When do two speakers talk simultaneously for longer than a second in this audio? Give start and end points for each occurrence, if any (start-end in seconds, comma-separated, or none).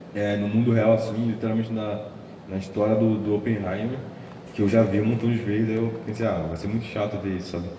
none